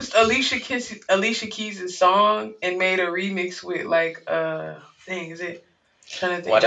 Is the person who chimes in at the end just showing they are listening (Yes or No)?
No